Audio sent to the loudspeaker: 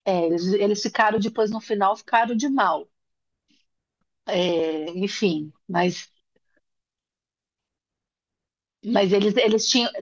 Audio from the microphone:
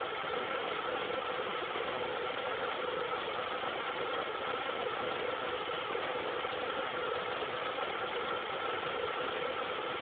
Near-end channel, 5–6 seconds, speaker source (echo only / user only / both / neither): neither